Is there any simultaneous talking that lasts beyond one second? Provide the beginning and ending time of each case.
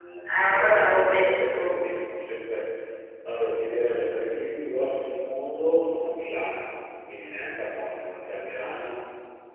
0.5-1.7

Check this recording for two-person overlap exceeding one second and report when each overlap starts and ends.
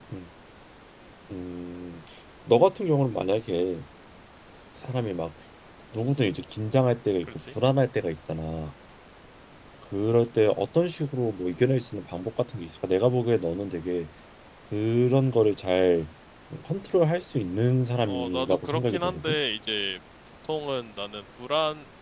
18.1-19.3

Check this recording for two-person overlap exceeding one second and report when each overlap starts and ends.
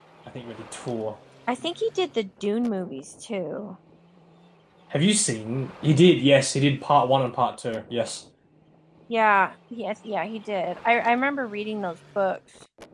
none

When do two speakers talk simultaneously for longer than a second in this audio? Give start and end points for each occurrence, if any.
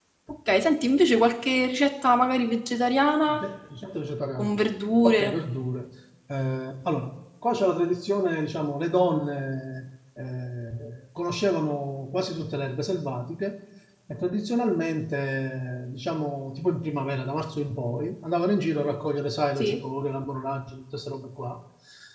none

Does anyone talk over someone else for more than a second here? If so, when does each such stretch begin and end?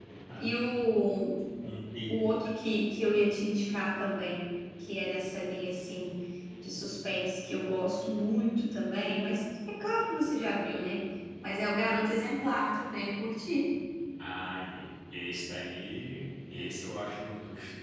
none

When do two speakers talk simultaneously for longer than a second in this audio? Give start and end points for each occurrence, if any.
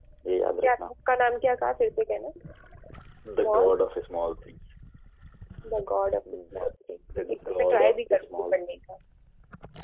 7.3-8.8

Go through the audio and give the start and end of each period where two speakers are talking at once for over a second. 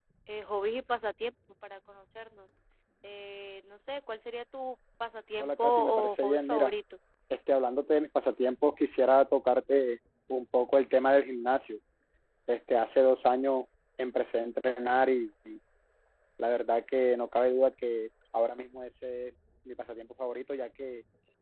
5.4-6.7

